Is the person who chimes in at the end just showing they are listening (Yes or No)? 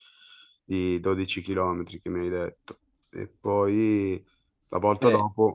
Yes